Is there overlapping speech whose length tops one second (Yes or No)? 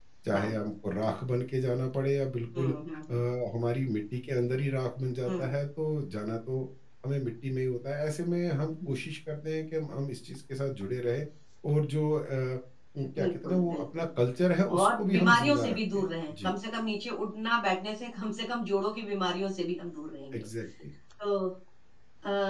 Yes